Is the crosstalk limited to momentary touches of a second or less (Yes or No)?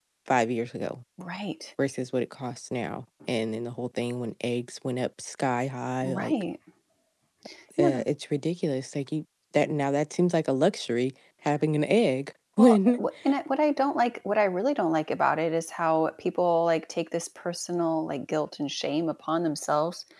Yes